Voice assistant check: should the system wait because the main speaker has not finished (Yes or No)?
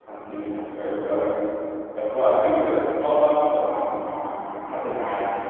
Yes